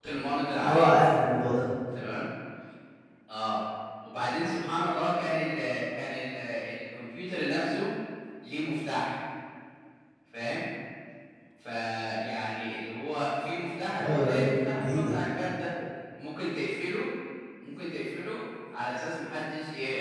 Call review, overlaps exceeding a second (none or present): present